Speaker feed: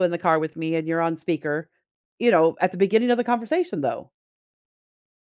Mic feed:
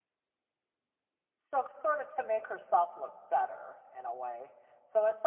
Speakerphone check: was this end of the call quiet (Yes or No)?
No